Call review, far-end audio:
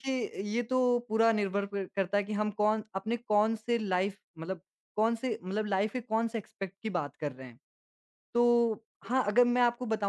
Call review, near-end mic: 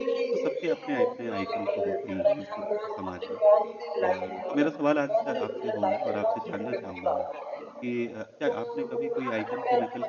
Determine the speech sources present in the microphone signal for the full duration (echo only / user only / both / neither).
both